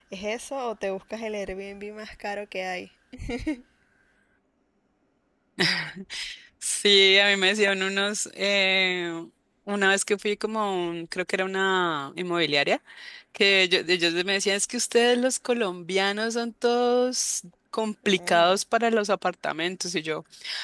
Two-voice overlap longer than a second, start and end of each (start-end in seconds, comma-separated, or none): none